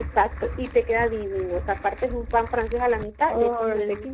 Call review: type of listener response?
listening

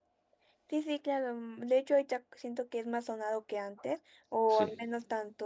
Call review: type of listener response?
listening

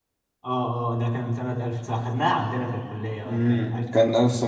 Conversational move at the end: taking over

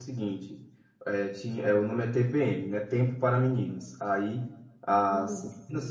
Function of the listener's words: listening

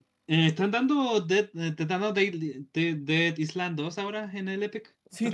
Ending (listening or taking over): taking over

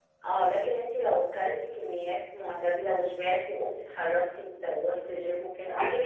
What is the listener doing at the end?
taking over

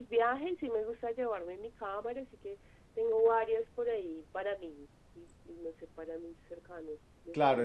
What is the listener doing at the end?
taking over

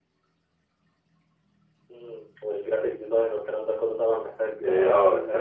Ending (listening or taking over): taking over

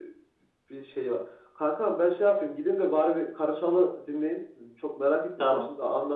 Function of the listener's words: listening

